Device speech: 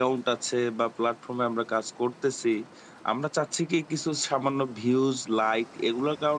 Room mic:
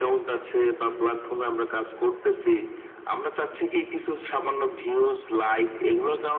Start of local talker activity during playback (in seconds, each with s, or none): none